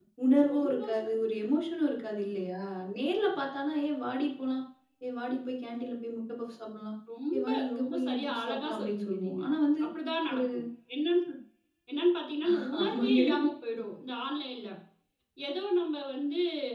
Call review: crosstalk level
present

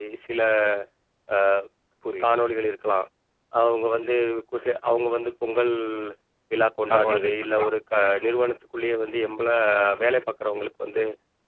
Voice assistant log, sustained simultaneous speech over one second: present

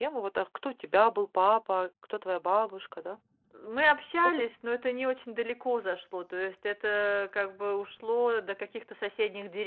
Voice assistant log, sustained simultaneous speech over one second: none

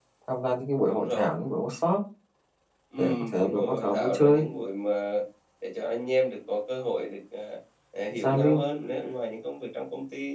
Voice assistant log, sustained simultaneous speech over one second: present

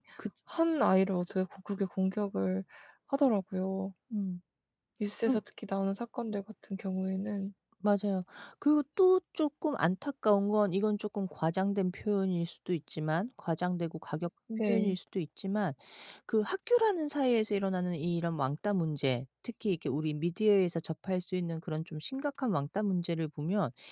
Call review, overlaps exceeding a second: none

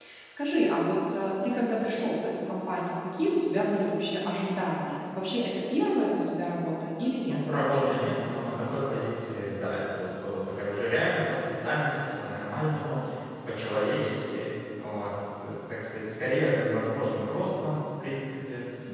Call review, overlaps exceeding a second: none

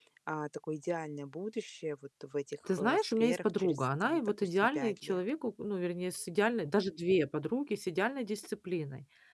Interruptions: present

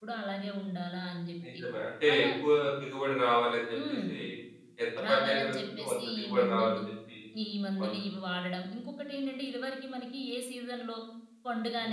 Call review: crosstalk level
present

